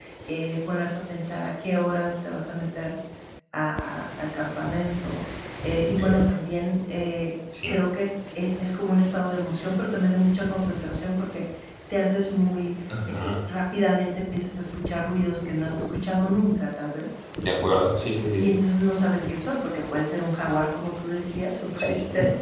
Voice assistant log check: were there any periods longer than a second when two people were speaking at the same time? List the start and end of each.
none

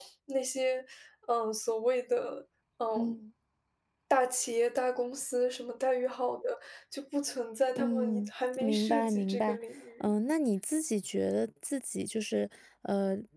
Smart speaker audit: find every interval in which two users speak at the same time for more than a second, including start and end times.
7.8-9.6

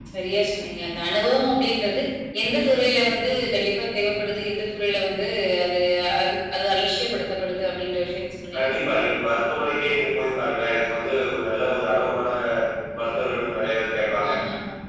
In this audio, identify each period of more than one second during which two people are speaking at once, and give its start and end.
none

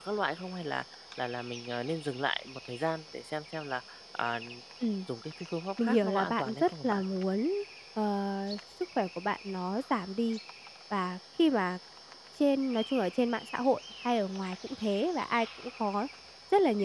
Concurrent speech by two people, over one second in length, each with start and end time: 5.8-7.0

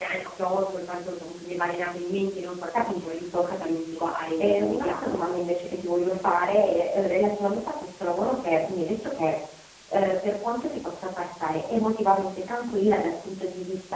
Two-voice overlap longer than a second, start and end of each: 2.9-5.2

